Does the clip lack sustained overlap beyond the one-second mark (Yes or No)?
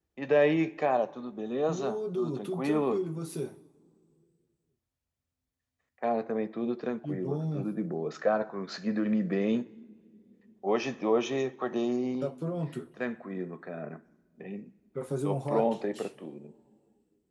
No